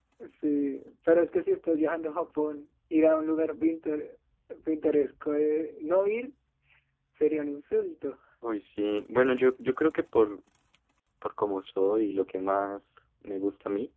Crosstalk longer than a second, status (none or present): none